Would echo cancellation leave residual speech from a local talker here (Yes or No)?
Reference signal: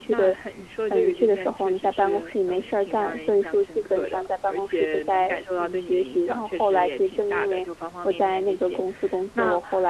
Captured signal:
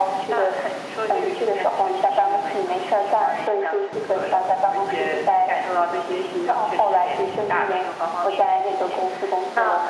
No